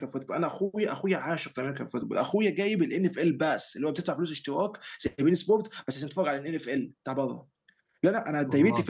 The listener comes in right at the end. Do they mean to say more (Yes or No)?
No